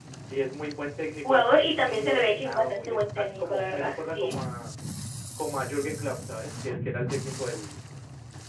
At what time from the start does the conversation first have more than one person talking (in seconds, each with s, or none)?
1.2 s